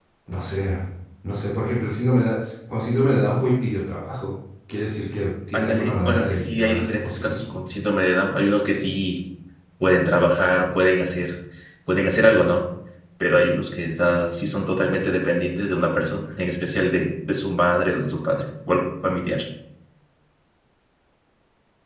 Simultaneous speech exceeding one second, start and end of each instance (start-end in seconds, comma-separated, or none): 5.5-7.4